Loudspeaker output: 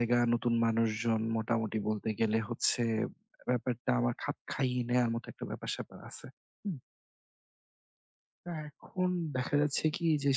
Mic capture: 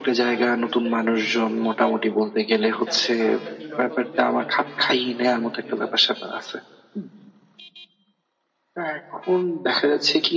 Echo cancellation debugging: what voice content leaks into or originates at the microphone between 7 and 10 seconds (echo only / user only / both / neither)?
echo only